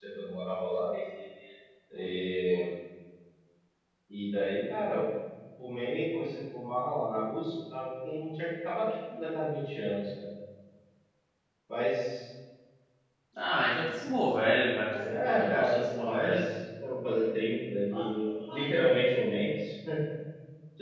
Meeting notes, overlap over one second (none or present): present